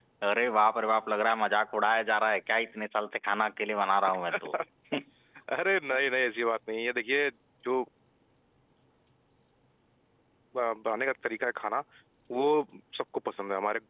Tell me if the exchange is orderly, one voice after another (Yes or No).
Yes